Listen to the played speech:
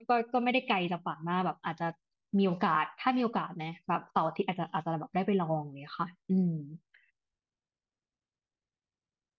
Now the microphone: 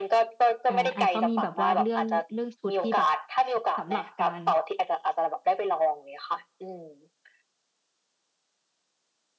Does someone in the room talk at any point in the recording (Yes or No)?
Yes